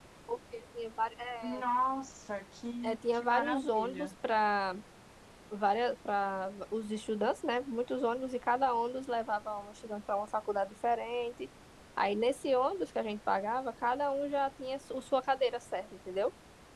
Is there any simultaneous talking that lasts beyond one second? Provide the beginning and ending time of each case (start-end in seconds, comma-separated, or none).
2.8-4.1